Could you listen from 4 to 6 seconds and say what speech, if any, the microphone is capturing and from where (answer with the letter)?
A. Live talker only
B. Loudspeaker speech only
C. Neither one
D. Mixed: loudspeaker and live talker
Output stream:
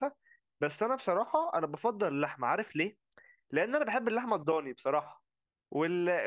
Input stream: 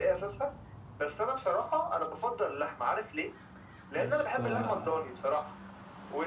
D